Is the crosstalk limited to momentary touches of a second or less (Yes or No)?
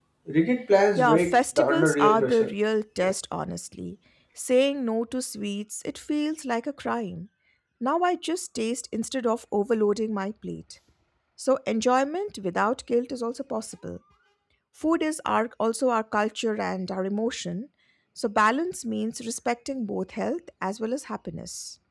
No